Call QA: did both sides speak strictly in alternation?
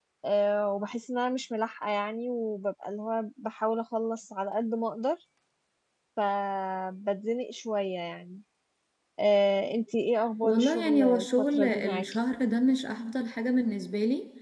No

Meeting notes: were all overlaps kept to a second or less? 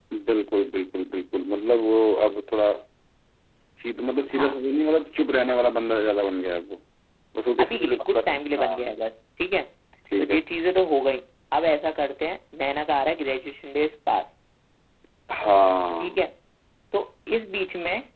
No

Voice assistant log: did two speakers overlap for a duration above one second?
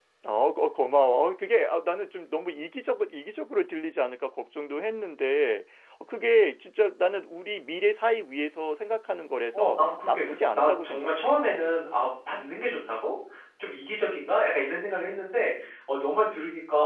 Yes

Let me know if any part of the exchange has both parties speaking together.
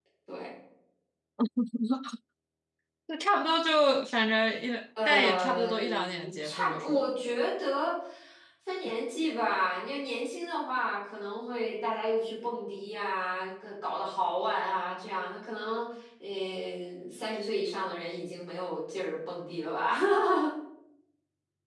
Yes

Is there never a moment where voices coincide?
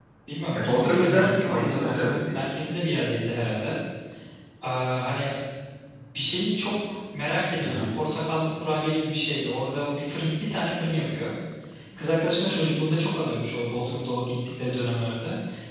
No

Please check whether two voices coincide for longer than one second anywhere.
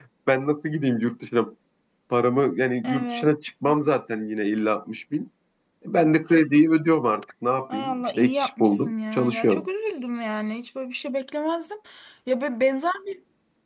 Yes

